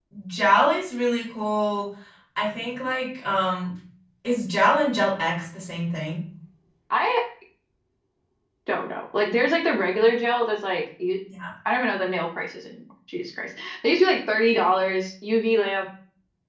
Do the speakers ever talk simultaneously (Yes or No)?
No